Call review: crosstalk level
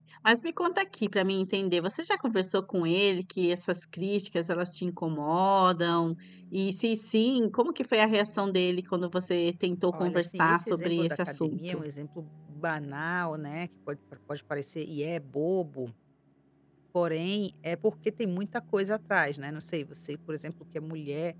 present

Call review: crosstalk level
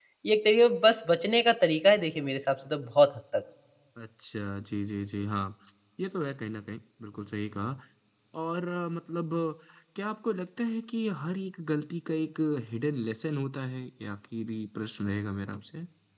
none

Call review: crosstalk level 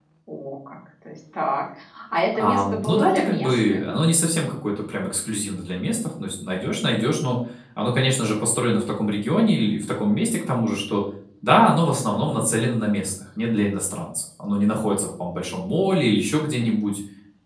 present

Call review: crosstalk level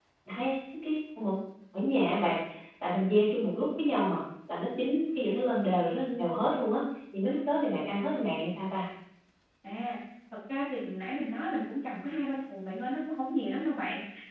none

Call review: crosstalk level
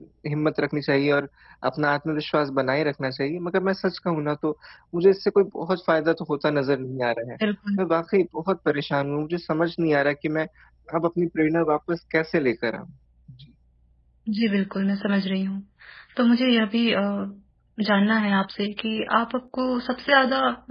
none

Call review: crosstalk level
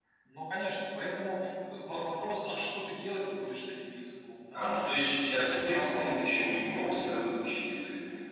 present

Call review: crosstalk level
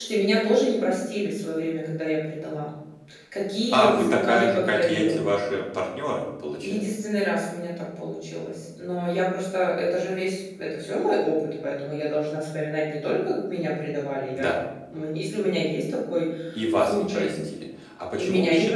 present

